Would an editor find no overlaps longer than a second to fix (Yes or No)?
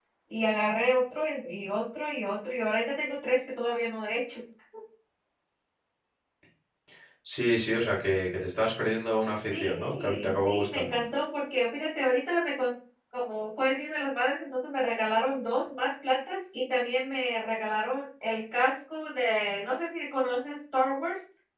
No